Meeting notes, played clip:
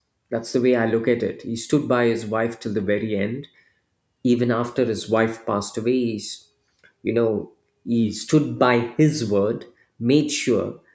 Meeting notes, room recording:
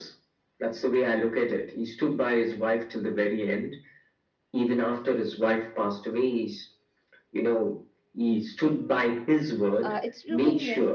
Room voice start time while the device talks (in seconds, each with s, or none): 9.8 s